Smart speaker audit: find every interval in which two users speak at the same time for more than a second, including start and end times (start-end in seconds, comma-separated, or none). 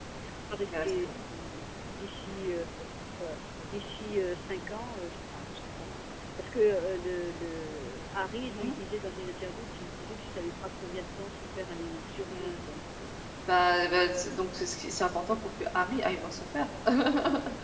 none